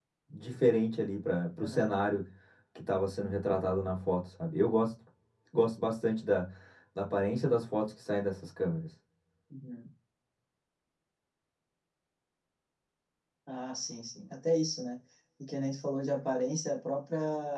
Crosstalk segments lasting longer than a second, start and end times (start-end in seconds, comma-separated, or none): none